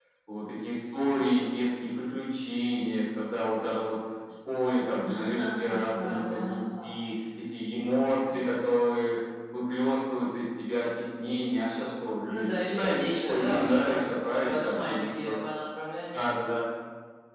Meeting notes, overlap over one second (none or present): present